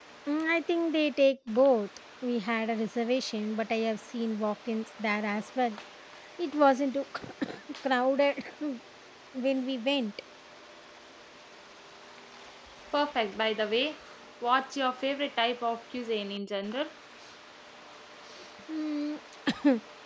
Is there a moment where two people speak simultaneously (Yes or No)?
No